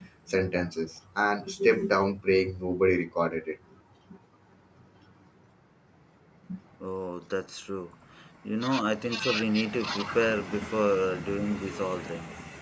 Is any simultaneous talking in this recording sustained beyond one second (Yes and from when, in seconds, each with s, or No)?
No